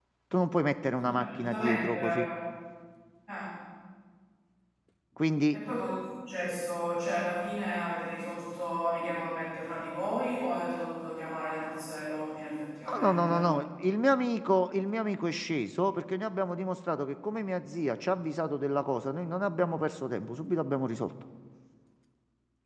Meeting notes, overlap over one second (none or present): present